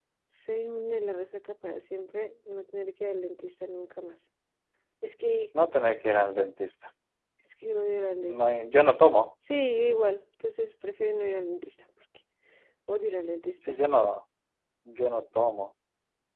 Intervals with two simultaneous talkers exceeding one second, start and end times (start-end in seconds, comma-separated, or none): none